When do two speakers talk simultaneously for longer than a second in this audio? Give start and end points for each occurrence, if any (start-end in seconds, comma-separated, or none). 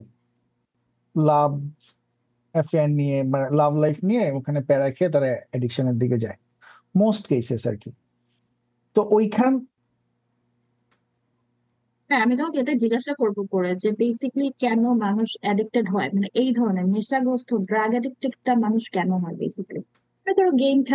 none